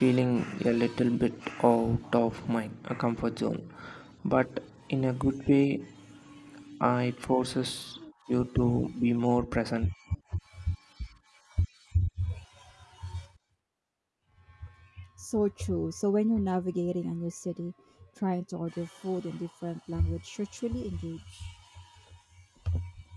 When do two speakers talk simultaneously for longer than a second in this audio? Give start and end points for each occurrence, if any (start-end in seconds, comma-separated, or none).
none